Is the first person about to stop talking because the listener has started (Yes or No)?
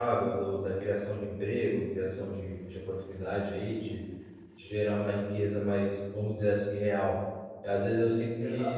No